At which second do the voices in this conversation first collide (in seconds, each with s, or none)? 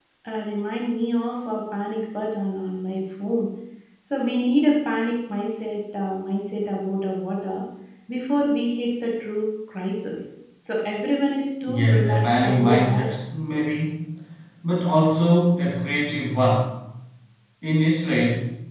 11.7 s